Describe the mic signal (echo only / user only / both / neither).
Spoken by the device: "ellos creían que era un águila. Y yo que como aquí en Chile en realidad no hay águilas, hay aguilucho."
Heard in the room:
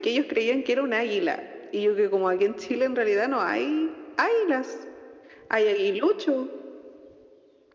echo only